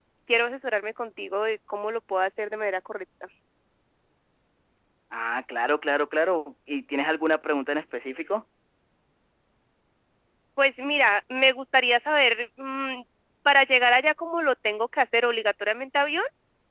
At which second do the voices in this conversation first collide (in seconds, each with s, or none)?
none